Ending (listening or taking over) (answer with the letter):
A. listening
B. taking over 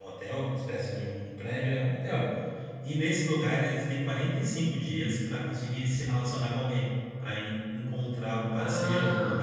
B